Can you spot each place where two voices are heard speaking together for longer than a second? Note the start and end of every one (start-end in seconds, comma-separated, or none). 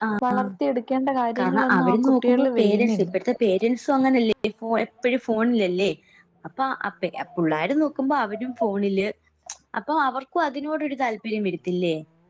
1.4-3.1